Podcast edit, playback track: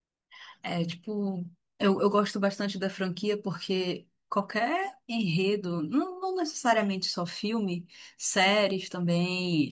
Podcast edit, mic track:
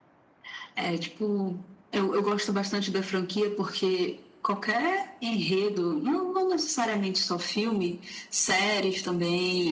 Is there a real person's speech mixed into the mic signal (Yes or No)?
No